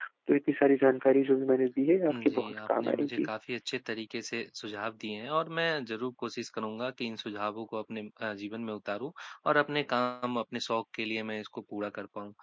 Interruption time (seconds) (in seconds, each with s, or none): 2.1 s